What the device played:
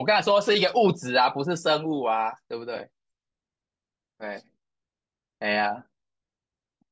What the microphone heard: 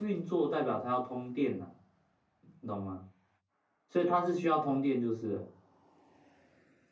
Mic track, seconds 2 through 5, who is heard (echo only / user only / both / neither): user only